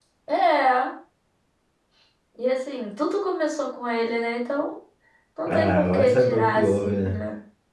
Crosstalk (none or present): present